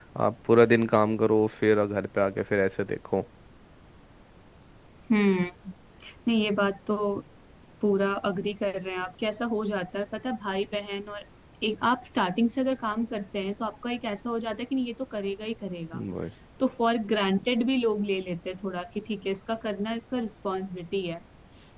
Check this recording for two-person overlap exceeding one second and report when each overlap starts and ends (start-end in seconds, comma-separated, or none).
none